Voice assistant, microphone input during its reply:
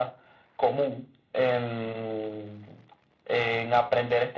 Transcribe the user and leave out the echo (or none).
none